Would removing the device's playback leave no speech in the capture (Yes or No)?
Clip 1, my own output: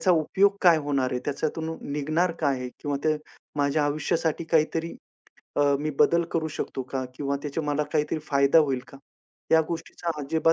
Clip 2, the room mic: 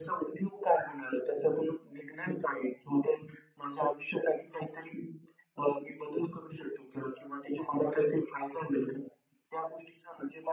Yes